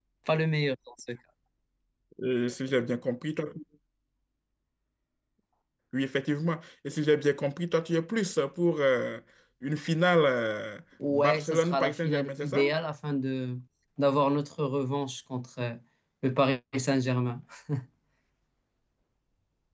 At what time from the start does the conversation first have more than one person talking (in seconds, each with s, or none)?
11.0 s